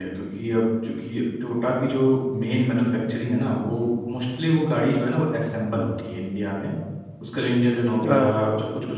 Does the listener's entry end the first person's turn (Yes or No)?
No